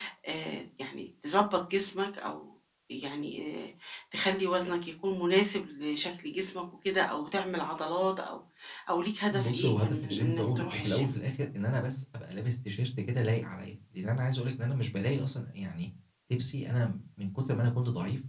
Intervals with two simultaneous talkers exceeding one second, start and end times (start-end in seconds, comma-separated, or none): 9.4-11.1